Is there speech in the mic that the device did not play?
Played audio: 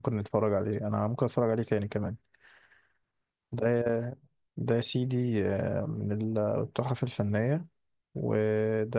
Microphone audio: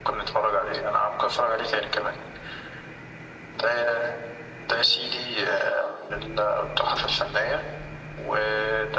No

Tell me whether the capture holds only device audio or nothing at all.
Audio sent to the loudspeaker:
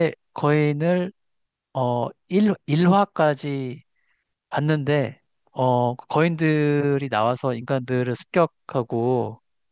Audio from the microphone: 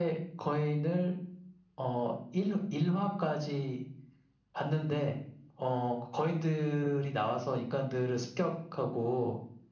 Yes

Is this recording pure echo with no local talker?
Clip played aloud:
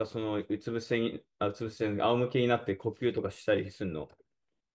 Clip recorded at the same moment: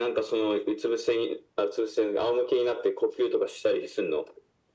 Yes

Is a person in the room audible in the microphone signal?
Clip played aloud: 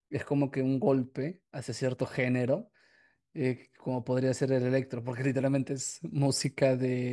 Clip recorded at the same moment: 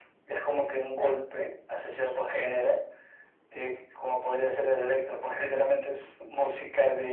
No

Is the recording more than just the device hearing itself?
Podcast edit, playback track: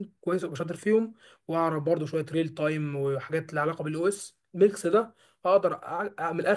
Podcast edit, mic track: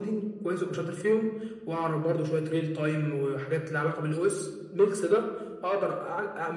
No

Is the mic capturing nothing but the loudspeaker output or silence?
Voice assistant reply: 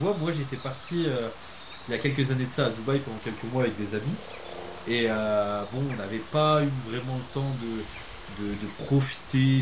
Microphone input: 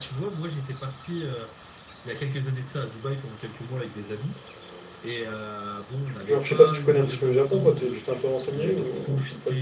No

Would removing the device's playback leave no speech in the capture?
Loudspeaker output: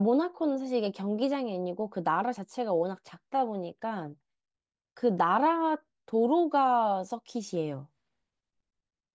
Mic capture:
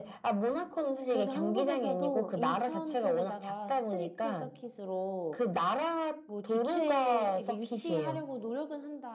No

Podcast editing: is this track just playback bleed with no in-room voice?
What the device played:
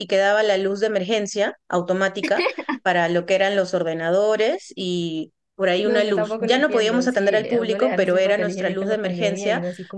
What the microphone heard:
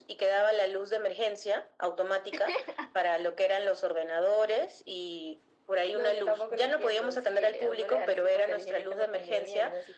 Yes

